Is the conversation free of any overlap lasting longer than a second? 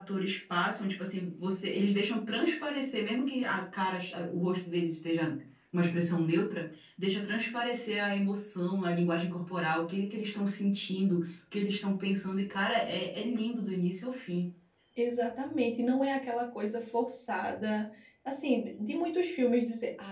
Yes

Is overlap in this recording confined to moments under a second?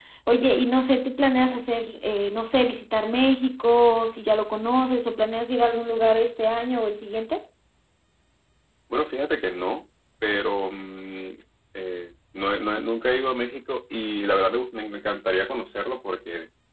Yes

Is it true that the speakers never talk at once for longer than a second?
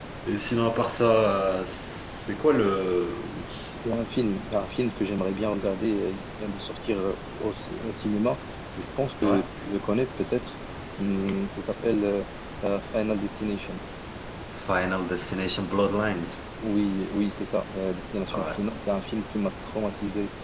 Yes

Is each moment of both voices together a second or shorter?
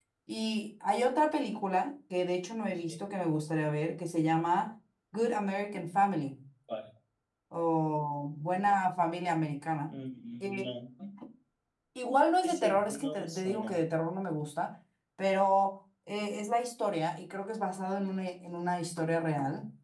No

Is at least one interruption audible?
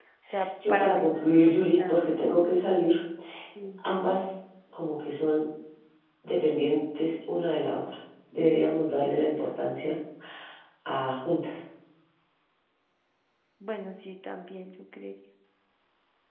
Yes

